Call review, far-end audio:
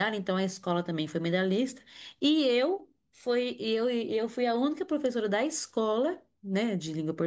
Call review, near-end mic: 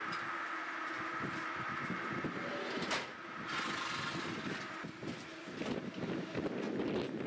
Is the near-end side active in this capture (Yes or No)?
No